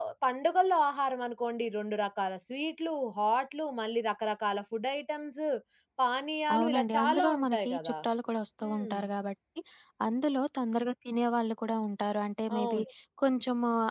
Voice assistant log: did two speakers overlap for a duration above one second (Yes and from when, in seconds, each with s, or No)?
Yes, from 6.5 s